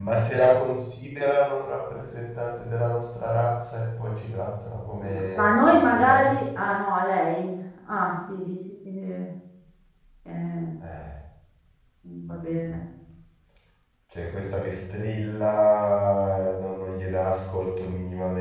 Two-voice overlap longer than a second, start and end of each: 5.0-6.3

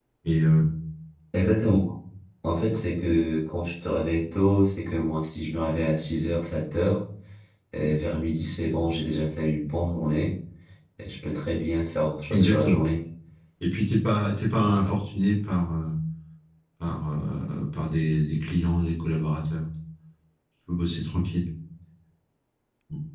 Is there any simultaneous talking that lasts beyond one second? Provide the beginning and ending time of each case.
none

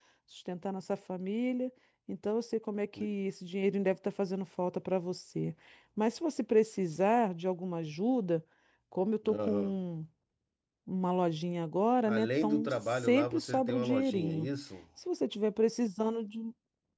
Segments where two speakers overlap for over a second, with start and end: 12.1-14.5

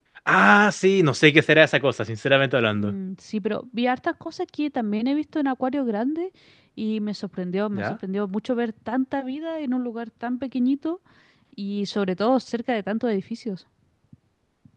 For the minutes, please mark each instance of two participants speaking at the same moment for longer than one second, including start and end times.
none

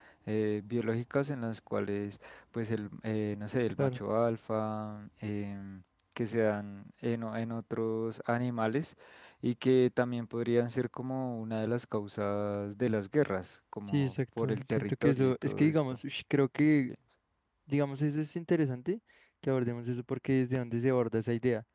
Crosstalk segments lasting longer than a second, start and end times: 13.9-15.8

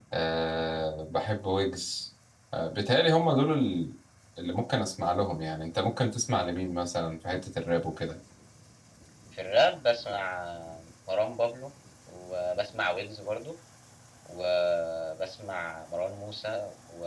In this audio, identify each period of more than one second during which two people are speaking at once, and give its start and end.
none

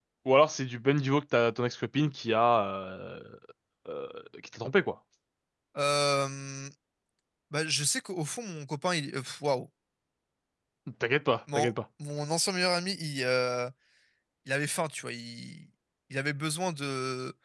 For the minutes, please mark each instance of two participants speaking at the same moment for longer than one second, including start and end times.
none

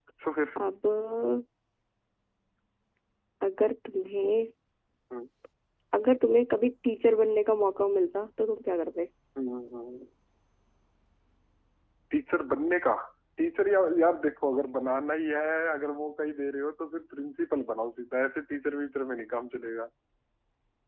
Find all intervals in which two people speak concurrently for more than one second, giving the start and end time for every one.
none

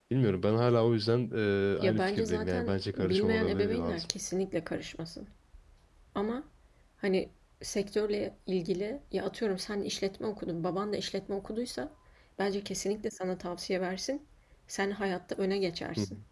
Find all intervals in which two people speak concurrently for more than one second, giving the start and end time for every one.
1.8-4.1

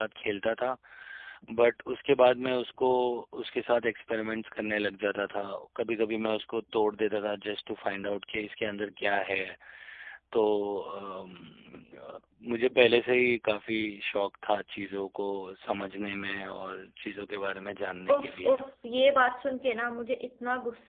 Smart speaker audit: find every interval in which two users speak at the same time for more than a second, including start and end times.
none

